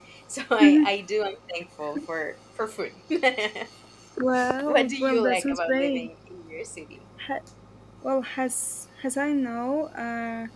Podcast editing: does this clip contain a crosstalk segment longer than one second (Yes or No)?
Yes